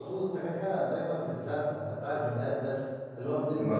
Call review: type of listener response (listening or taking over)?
listening